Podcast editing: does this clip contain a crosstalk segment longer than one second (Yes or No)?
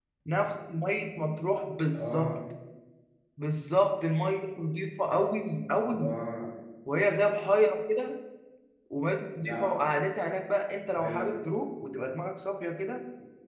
No